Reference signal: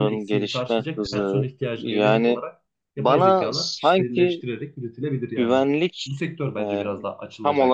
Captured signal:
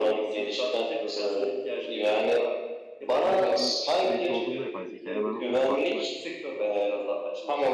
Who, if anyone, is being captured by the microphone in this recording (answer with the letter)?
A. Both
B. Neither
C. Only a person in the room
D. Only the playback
A